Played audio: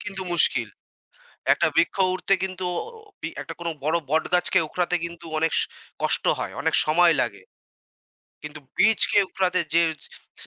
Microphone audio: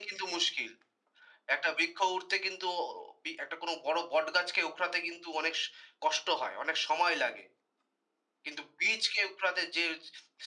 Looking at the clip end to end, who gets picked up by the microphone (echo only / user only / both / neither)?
echo only